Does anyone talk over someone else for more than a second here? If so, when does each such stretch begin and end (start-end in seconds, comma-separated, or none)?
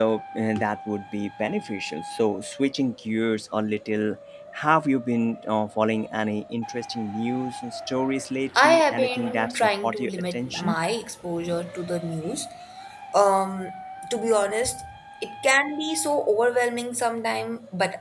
8.6-10.8